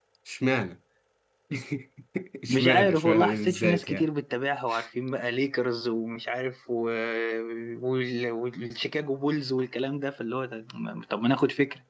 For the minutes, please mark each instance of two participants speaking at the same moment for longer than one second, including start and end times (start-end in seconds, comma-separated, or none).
2.5-4.1